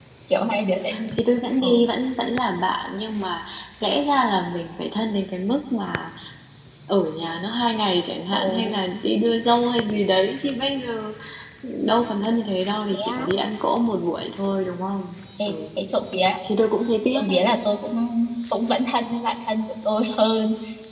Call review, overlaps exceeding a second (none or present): none